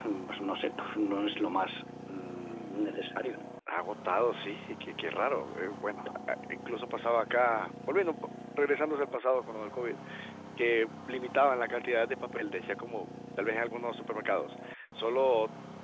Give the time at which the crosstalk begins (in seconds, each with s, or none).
none